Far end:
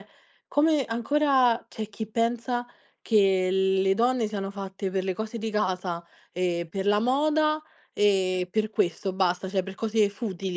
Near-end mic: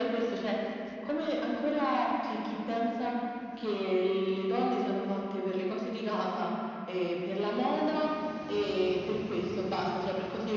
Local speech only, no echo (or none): none